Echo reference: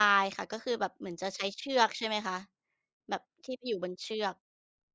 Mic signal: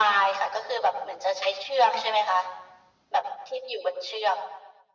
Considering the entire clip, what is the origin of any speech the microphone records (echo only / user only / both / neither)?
echo only